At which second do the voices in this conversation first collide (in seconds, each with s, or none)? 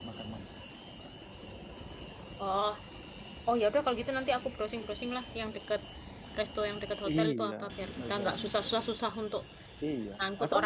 7.1 s